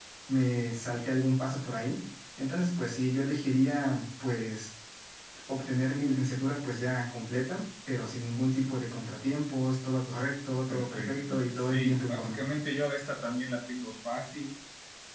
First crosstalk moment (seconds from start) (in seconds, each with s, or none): 10.7 s